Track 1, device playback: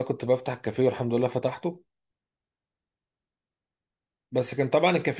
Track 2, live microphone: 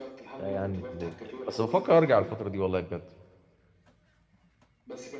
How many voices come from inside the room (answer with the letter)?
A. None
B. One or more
B